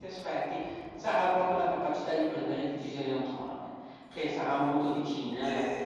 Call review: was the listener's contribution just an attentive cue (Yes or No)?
Yes